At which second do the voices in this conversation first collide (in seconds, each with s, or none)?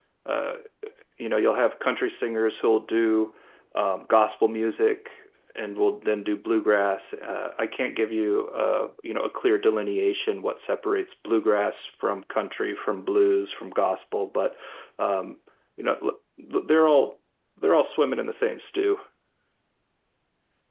none